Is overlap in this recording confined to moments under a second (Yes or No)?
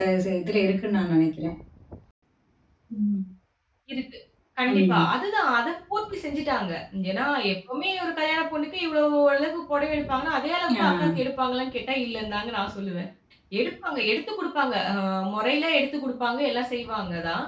Yes